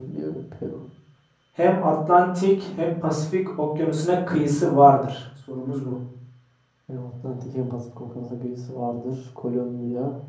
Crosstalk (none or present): none